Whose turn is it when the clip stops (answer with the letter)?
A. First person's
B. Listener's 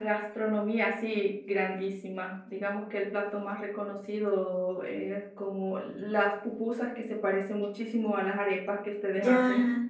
B